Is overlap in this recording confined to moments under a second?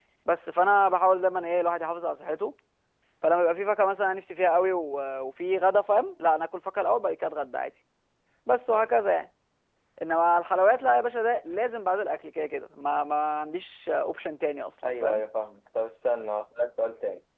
Yes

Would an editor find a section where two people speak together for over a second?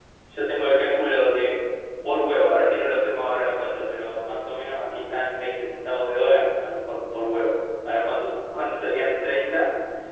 No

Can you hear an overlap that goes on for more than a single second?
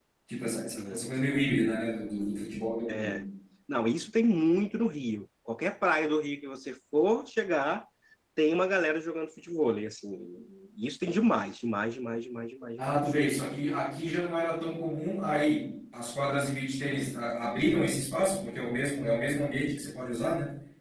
No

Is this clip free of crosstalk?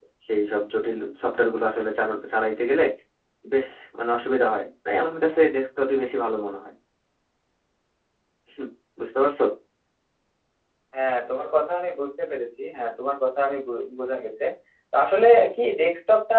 Yes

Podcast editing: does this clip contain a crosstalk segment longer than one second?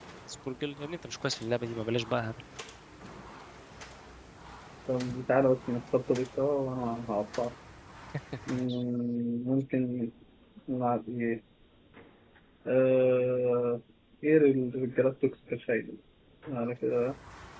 No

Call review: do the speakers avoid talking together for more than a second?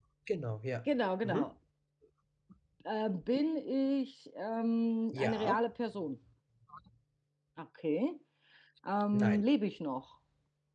Yes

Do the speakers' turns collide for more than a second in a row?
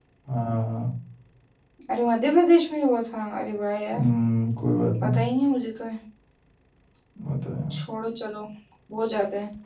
No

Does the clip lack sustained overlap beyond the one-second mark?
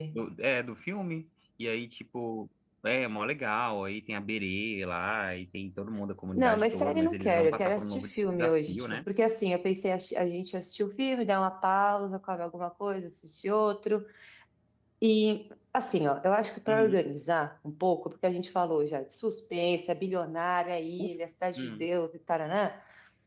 No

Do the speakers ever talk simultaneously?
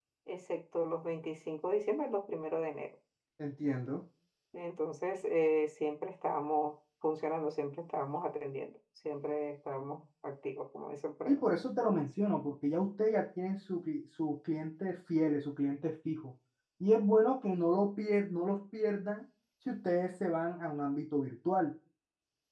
No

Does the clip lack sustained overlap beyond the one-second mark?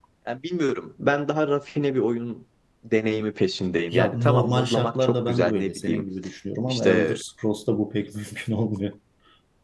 No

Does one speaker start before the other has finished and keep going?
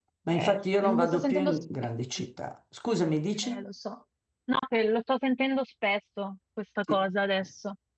Yes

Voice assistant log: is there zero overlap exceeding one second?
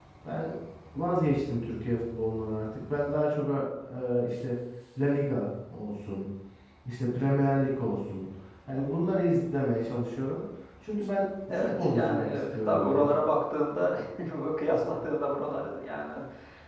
No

